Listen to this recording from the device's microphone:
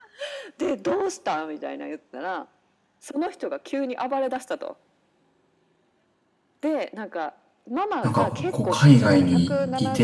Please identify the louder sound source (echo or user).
user